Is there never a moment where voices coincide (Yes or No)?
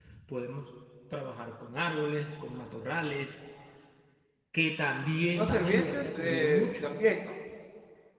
No